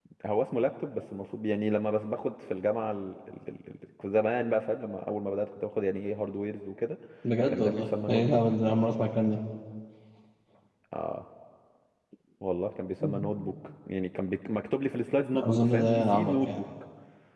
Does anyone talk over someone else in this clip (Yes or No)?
Yes